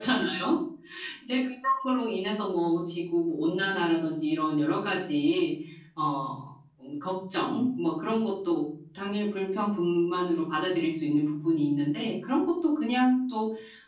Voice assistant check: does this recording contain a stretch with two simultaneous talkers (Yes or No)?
No